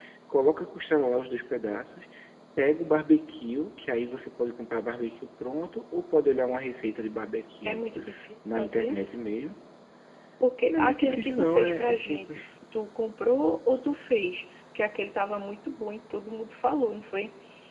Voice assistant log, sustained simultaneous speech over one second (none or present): present